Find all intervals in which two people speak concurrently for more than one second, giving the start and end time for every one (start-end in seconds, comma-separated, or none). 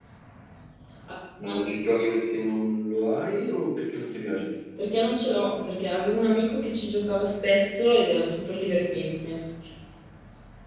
none